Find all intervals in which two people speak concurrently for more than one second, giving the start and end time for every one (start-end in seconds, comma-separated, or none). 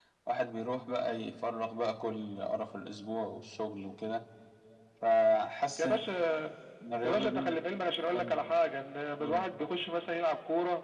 none